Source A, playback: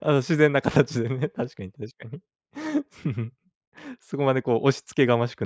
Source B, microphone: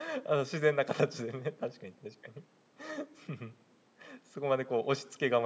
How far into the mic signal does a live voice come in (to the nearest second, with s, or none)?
none